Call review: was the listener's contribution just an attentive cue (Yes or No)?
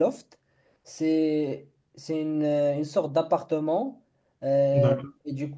Yes